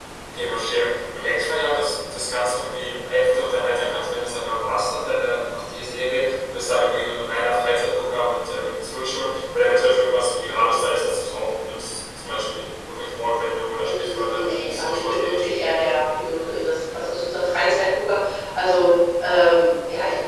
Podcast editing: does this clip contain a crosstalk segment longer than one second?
Yes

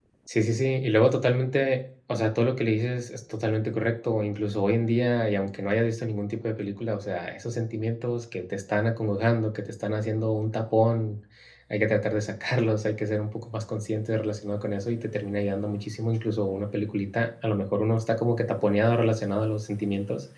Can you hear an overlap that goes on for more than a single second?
No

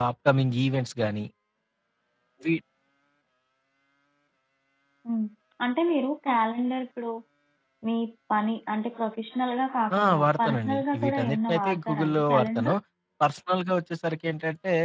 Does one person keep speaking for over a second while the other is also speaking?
Yes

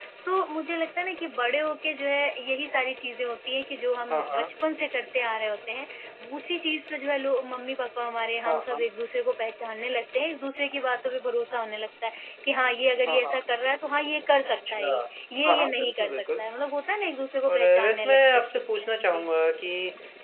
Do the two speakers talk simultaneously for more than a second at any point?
Yes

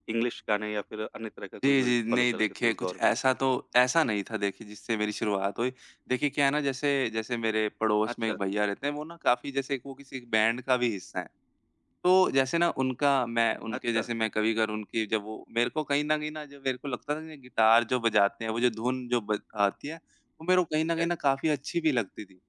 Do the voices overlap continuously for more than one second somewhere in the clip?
Yes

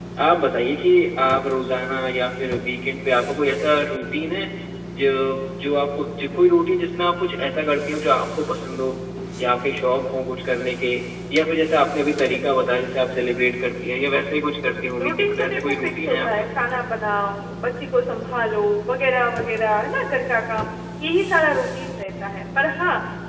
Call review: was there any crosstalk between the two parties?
Yes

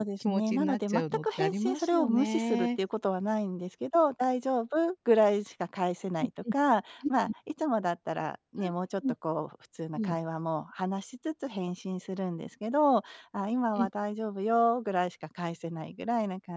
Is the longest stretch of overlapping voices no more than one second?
No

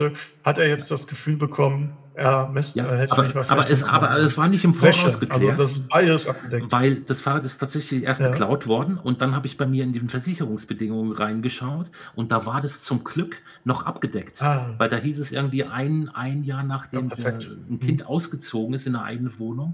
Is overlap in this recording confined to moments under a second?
No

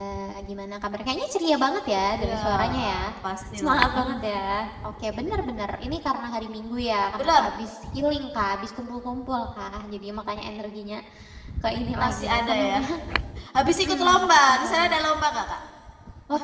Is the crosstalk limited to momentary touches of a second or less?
No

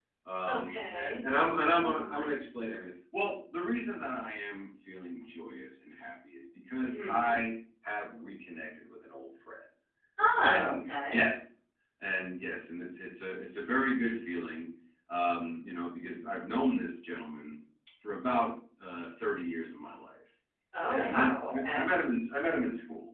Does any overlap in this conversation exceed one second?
Yes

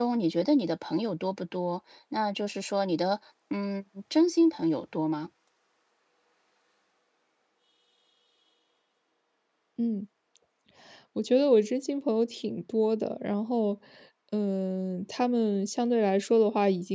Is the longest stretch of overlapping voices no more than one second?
Yes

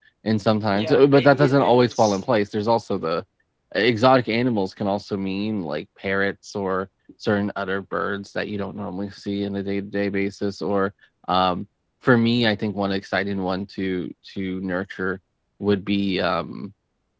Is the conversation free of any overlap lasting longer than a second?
No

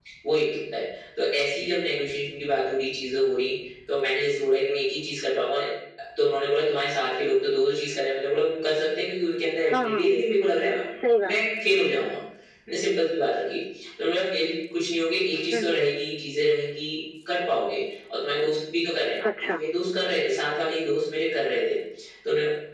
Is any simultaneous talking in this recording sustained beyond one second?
No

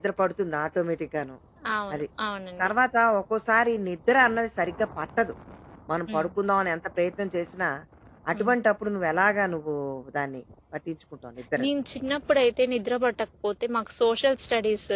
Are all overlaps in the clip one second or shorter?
Yes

